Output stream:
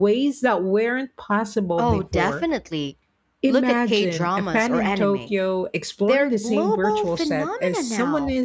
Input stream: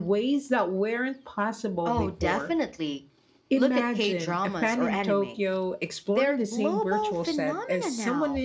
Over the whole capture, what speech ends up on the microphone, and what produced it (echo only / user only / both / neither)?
echo only